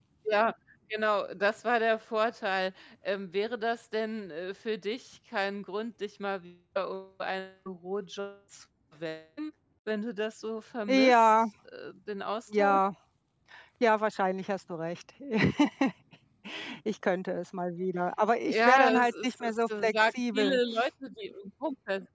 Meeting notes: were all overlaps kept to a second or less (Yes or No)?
No